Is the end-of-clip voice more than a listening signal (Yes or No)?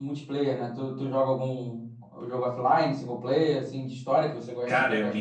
Yes